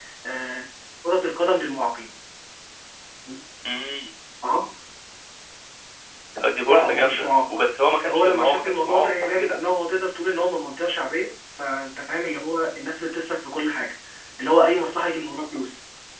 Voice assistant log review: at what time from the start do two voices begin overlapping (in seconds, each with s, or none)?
6.6 s